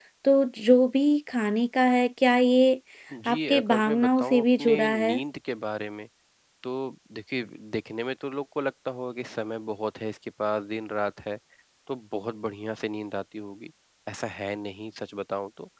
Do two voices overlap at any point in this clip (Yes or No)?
Yes